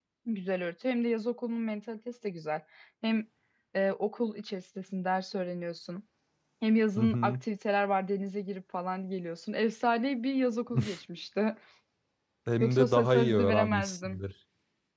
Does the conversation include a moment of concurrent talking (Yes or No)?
Yes